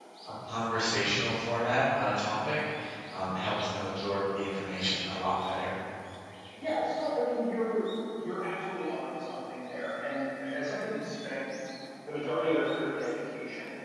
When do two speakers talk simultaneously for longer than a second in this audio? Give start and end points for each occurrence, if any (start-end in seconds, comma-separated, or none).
none